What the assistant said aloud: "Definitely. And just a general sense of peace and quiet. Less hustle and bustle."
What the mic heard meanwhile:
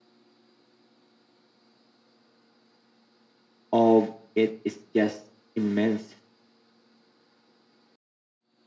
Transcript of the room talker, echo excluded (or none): of it is just immense.